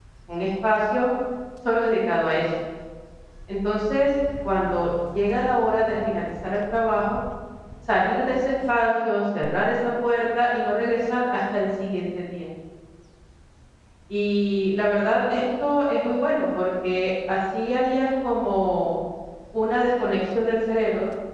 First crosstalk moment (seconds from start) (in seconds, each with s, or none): none